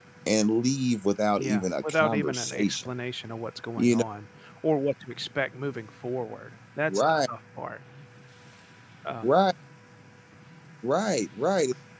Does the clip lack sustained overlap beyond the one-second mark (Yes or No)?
No